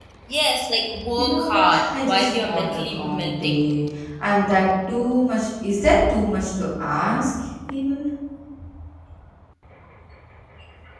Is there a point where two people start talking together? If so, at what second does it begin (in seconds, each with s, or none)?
1.1 s